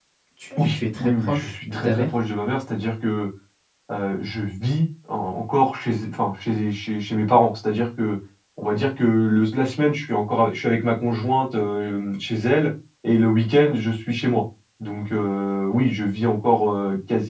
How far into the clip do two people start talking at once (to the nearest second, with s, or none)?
1 s